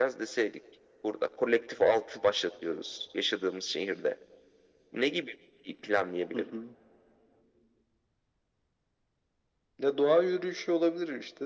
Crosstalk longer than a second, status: none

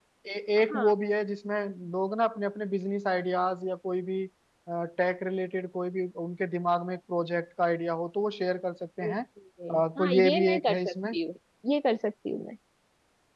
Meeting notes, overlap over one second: present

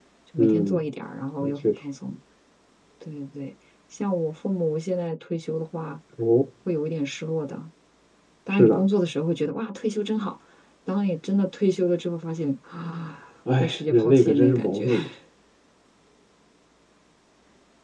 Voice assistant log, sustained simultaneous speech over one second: present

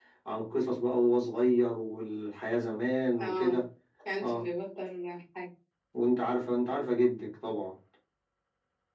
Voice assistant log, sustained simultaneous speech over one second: none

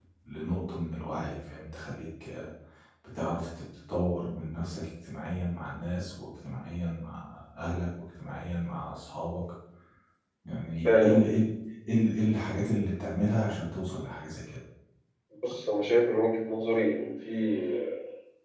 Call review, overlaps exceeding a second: none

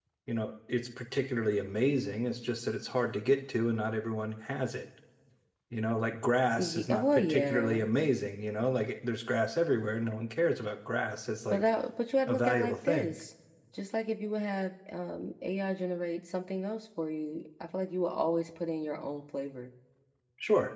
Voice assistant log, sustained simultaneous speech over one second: present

